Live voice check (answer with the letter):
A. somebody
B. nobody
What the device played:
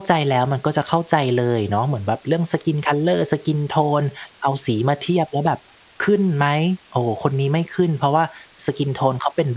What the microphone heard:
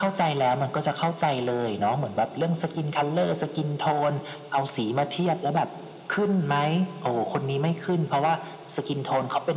B